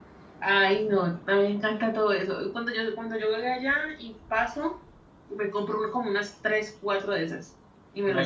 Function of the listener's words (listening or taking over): taking over